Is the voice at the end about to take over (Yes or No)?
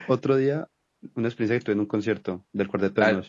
Yes